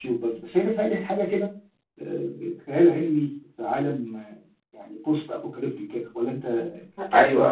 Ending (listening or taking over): taking over